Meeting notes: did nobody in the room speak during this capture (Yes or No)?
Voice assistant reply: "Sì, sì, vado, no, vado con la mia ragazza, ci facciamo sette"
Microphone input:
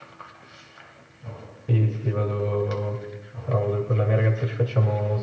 Yes